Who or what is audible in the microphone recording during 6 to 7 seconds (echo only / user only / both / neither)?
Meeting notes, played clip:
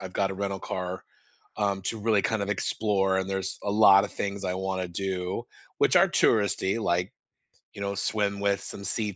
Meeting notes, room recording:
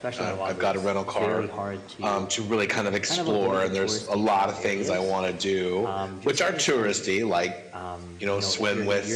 both